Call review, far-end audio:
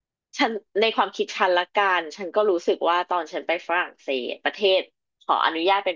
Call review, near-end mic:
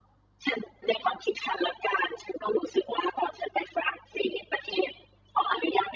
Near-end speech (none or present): none